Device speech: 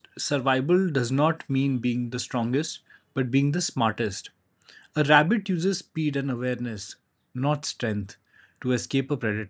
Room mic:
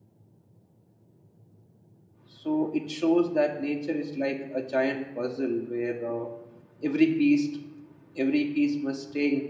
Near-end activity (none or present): present